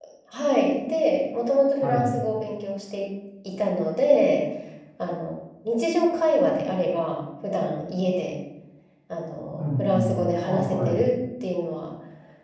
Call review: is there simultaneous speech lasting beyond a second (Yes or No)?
Yes